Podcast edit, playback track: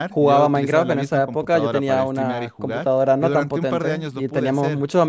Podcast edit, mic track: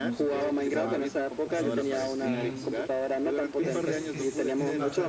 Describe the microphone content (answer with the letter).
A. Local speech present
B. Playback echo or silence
A